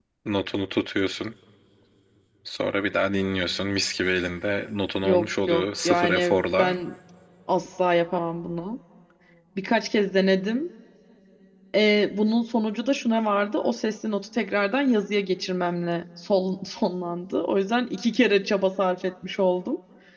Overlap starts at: 5.0 s

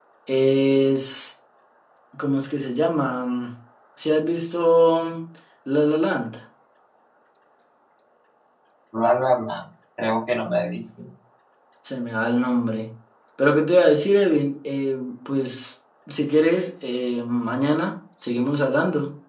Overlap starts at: none

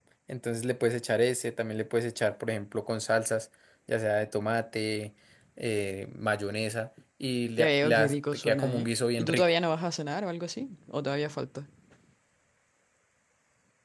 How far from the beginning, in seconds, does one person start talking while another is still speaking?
7.6 s

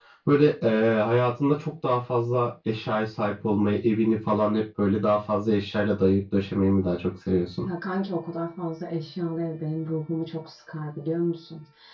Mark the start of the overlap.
none

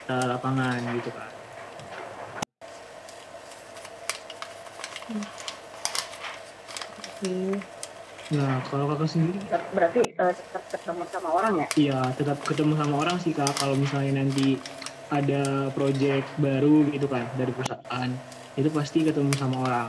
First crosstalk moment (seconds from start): none

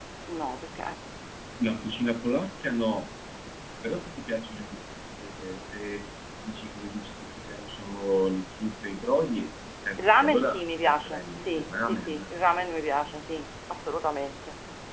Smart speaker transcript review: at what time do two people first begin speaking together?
10.0 s

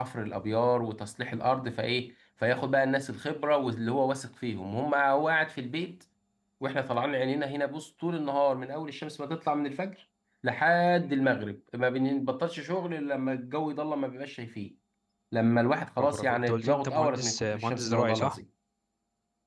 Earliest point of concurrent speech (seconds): 16.0 s

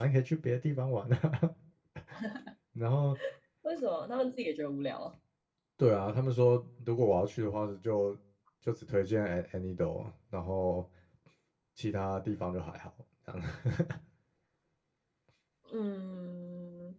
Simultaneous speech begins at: none

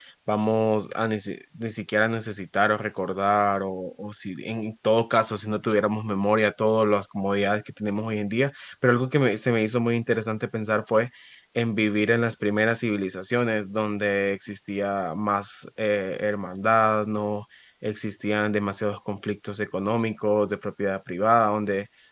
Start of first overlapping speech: none

